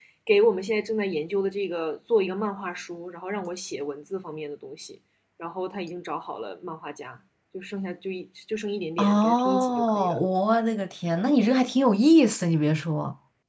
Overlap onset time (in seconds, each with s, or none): 9.0 s